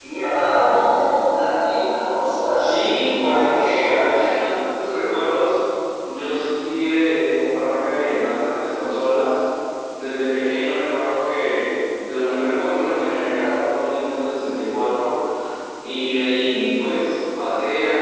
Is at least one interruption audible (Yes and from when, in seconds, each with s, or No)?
Yes, from 2.6 s